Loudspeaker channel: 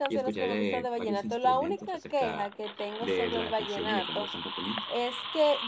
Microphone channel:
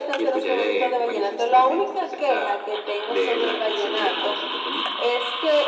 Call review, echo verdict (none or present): present